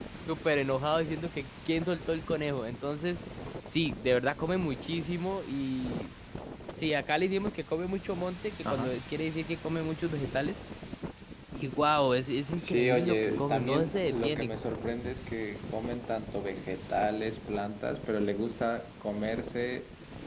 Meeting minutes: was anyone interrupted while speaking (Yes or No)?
Yes